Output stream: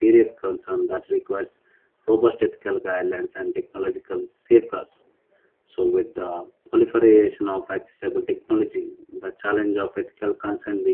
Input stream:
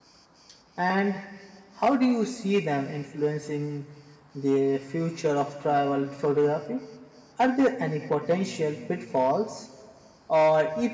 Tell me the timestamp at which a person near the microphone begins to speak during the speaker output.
0.8 s

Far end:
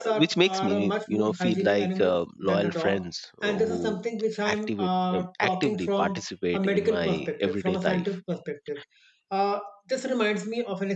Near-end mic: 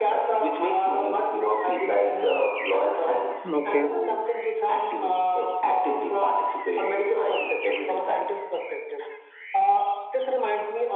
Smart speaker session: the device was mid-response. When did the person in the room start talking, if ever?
3.5 s

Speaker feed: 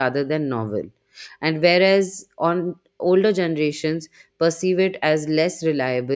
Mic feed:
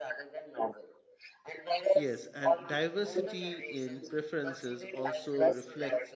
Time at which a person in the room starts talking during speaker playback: 1.9 s

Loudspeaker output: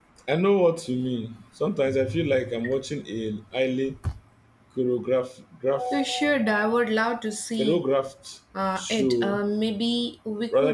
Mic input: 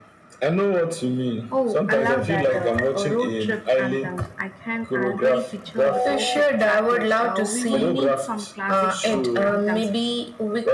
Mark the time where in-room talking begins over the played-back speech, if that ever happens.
1.5 s

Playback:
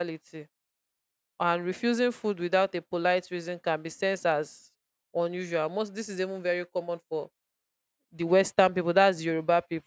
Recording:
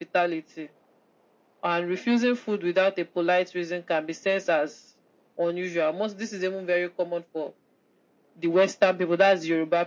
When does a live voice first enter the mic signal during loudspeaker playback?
none

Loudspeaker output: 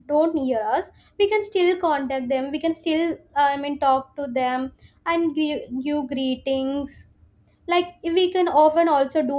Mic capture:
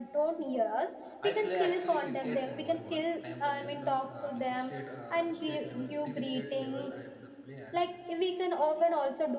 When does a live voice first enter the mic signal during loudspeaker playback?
1.2 s

